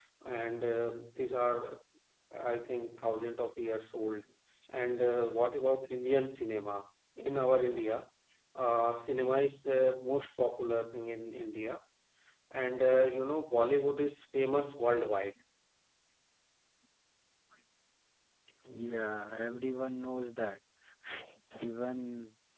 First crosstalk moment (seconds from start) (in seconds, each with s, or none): none